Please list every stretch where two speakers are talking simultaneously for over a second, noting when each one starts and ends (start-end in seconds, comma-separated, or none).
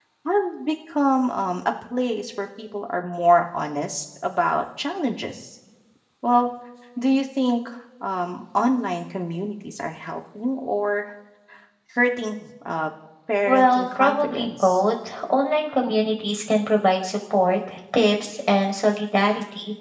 13.5-14.8